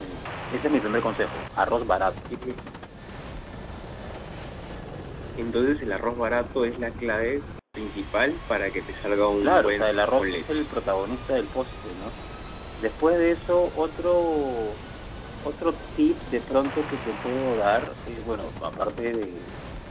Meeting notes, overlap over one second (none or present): present